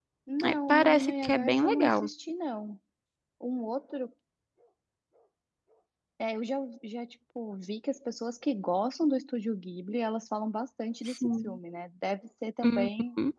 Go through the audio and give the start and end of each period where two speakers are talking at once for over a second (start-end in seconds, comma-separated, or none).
0.5-2.1